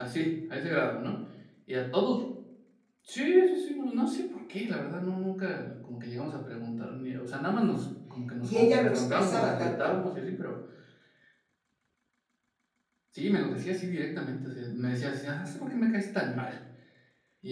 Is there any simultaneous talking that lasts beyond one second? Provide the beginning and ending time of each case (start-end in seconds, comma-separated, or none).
8.4-9.9